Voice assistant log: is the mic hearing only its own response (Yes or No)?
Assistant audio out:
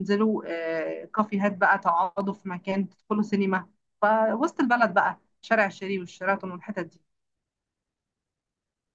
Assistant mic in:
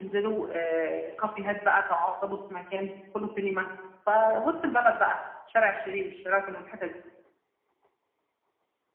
Yes